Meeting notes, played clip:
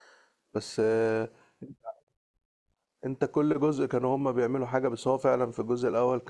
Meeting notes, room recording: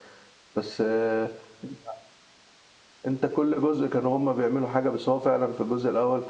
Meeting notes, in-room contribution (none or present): none